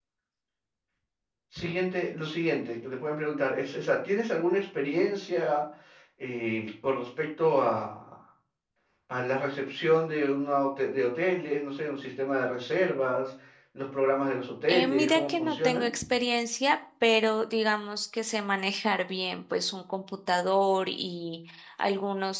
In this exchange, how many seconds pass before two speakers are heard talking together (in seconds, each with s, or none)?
14.7 s